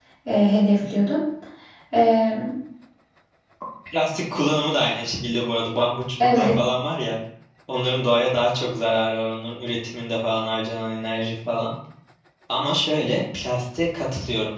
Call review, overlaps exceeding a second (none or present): none